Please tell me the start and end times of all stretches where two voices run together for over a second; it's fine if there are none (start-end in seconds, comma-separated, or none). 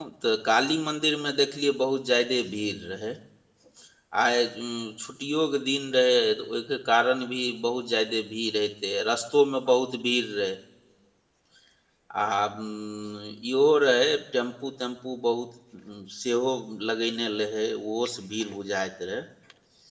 none